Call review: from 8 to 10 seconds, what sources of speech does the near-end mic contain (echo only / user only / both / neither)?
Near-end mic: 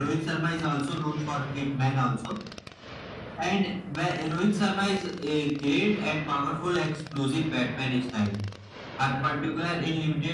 echo only